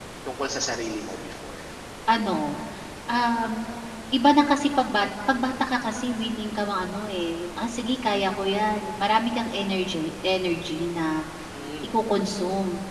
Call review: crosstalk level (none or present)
none